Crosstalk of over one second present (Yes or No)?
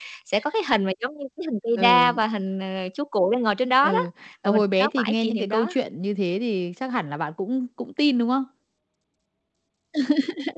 Yes